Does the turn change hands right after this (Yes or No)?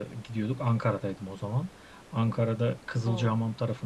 No